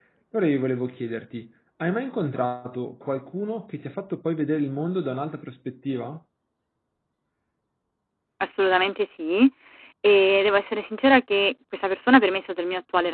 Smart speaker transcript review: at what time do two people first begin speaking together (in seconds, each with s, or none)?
none